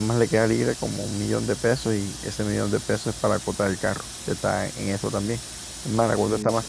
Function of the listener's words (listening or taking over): listening